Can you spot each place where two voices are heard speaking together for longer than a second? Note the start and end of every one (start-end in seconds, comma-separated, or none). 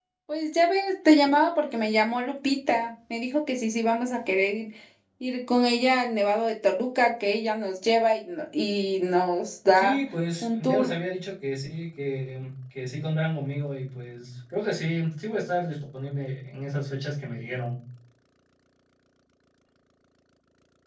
none